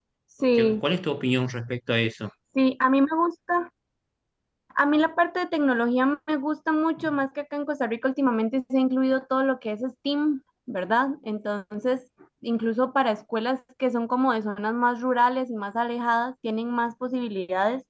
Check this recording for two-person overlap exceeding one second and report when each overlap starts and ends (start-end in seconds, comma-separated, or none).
none